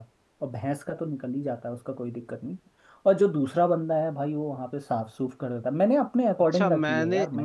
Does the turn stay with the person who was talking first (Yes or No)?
No